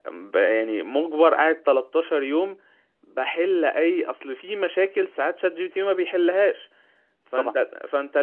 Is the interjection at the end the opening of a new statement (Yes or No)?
No